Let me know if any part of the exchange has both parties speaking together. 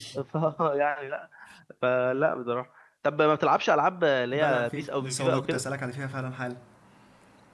Yes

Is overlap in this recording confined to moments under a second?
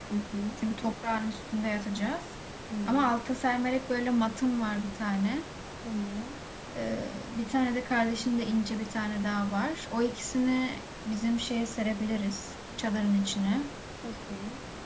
Yes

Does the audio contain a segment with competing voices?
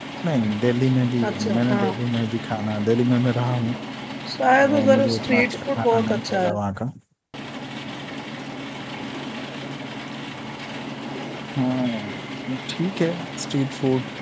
Yes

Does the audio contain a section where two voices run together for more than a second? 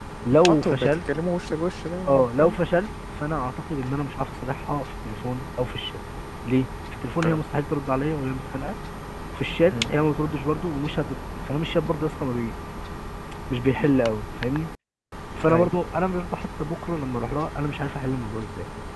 No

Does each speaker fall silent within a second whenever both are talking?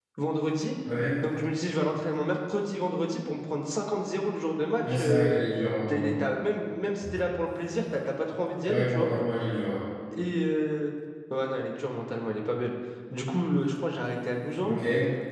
Yes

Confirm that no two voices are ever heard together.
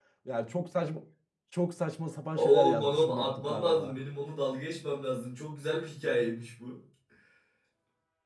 No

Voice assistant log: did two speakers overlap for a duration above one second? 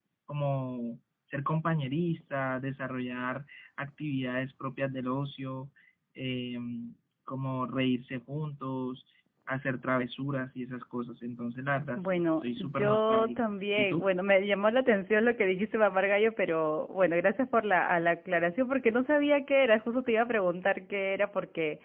Yes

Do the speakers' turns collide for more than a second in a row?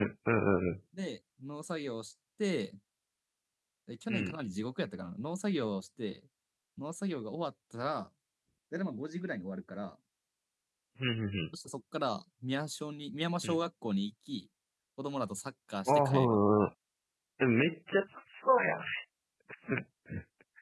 No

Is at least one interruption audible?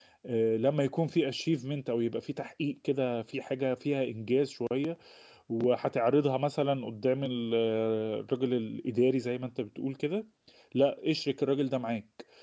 No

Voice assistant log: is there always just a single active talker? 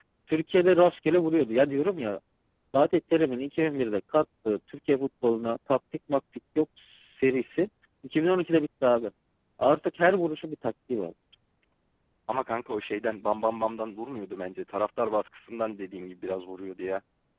Yes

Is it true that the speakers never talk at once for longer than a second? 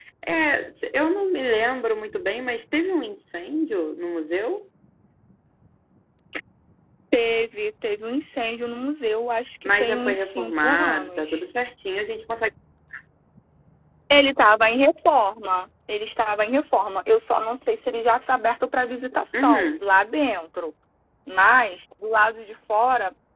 No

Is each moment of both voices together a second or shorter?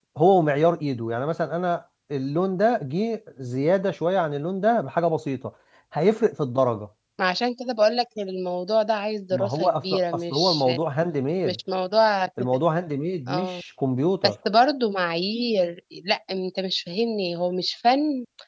No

